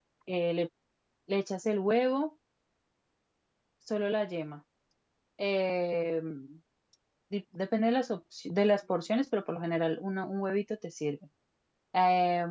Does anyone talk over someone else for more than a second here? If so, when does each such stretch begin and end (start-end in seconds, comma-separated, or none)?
none